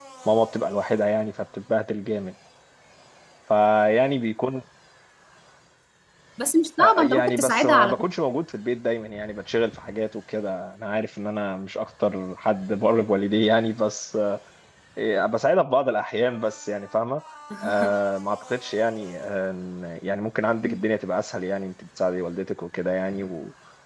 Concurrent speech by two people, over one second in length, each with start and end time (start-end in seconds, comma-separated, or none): 6.8-8.0